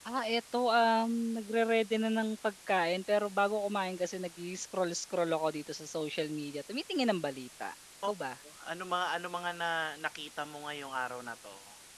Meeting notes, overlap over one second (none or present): none